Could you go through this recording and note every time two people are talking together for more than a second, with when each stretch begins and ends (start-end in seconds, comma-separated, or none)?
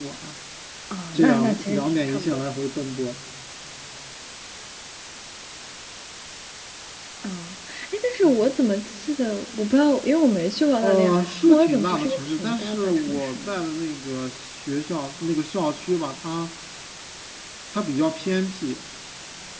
1.1-2.4, 10.8-13.6